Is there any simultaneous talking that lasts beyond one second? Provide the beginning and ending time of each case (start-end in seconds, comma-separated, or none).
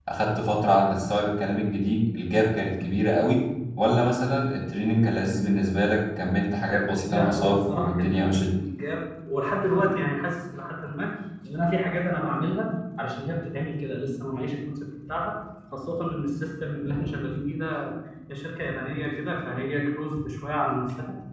7.1-8.5